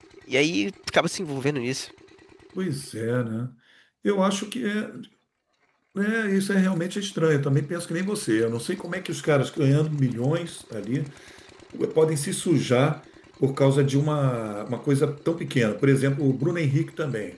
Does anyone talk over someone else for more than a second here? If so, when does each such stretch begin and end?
none

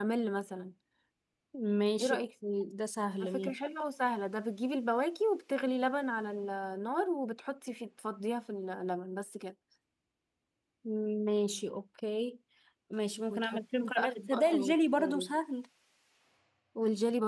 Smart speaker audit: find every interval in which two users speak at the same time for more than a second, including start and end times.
13.3-14.8

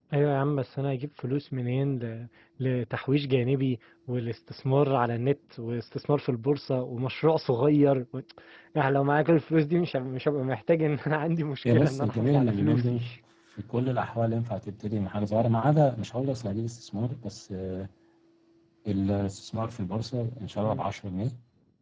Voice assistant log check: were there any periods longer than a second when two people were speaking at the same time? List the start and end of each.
11.7-13.0

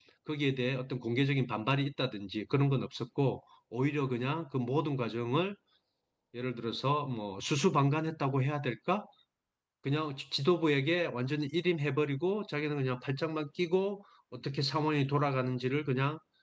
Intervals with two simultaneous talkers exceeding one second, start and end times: none

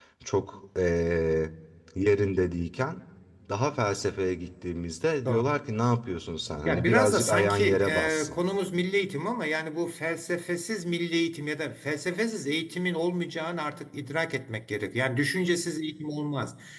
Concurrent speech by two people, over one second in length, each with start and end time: 6.6-8.4

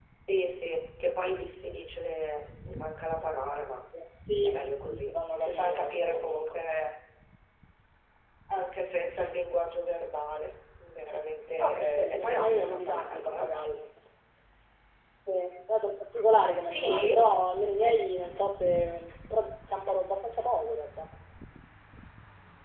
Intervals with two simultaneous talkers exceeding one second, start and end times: 4.5-6.6, 11.6-13.5

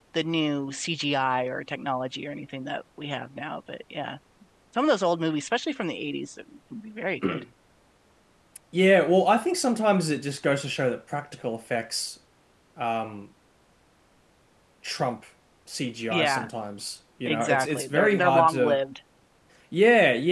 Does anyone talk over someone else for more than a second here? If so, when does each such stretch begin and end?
17.2-18.8

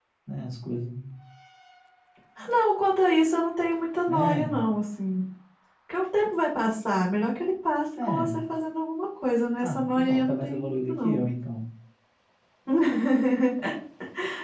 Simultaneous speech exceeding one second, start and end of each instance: 9.6-11.2

